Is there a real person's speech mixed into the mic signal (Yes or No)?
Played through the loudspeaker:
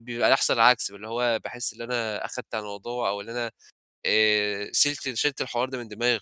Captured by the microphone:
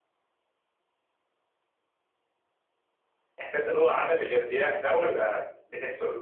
Yes